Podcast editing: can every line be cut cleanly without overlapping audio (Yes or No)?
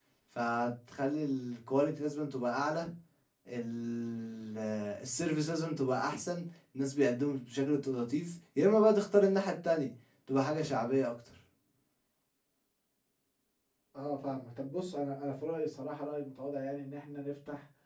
Yes